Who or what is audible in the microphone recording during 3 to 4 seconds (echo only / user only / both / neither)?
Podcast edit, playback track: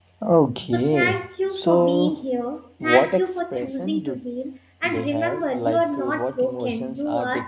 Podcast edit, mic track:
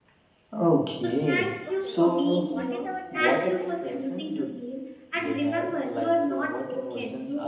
both